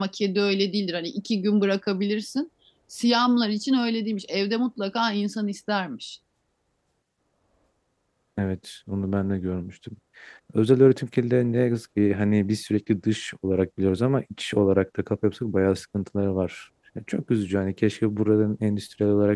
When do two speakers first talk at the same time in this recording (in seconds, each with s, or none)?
none